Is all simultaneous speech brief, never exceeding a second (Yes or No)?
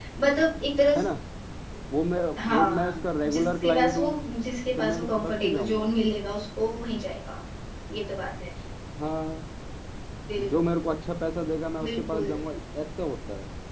No